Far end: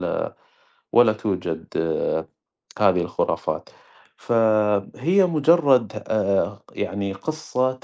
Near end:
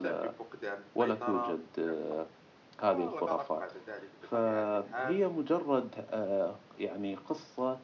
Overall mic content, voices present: both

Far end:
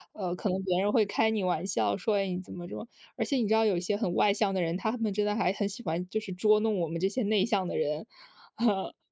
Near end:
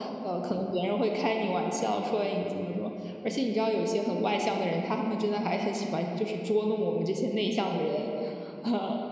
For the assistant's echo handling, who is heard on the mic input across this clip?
echo only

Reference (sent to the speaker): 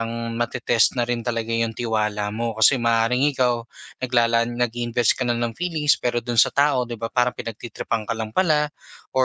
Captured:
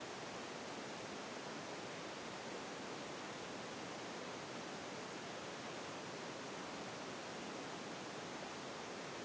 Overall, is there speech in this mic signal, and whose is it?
neither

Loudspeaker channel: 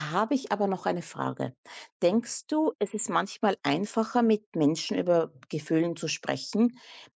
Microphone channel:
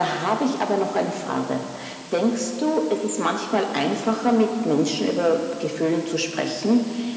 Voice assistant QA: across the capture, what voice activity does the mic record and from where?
echo only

